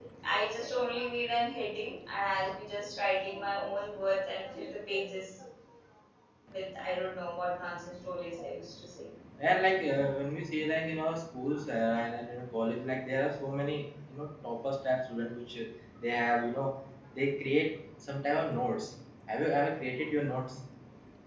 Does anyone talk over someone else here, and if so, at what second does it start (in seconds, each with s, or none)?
none